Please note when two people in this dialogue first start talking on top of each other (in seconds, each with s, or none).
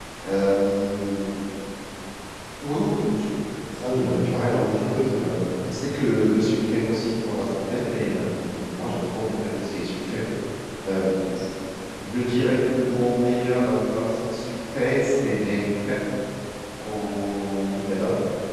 4.0 s